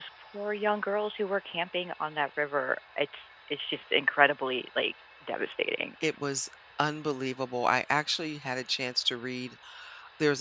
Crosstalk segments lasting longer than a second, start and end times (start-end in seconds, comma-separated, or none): none